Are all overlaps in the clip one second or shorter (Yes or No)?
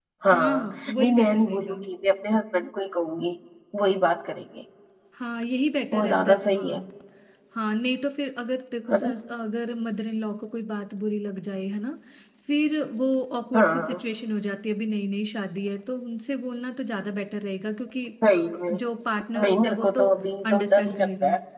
No